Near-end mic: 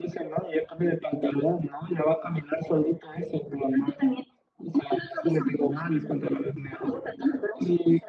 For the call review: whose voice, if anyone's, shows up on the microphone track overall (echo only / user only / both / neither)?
echo only